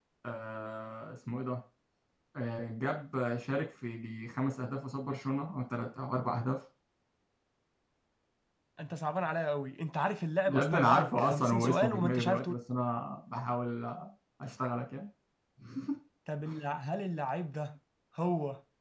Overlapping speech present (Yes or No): Yes